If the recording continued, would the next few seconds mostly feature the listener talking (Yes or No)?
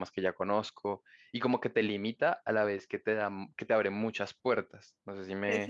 Yes